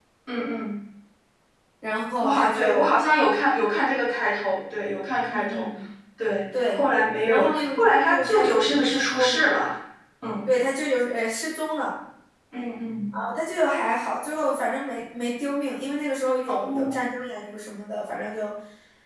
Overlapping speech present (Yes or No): Yes